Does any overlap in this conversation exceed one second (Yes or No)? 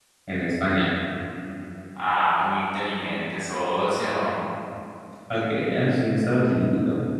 No